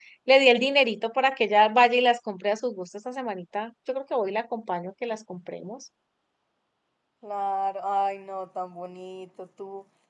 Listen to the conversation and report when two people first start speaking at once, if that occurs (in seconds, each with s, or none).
none